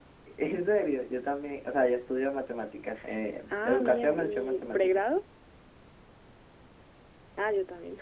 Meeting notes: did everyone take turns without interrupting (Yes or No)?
No